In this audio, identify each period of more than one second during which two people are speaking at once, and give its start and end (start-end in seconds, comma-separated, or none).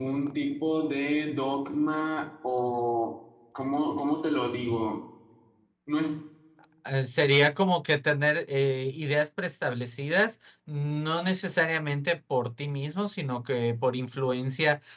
none